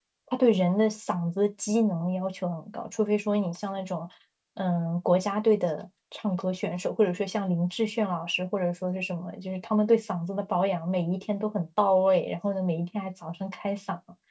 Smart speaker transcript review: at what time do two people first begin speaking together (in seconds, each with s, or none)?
none